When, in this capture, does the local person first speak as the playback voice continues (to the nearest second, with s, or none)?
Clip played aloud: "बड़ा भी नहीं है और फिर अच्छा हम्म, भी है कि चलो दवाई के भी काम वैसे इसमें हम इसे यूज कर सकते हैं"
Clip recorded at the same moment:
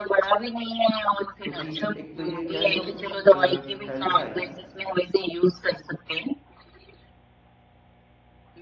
1 s